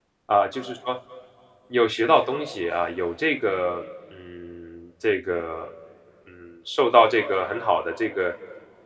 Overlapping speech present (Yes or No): No